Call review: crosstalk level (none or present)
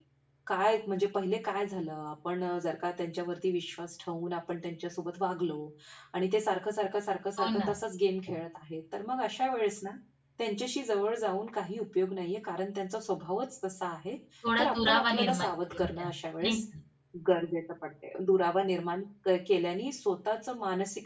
present